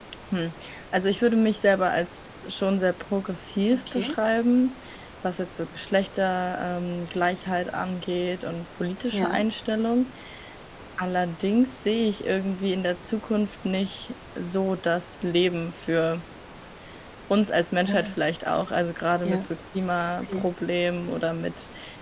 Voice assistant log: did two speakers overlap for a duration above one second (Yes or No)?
No